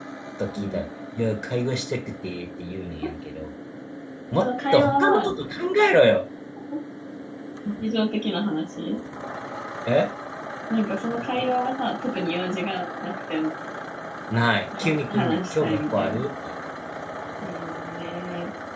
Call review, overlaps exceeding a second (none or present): present